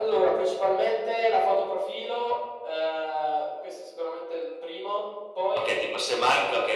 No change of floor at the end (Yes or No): No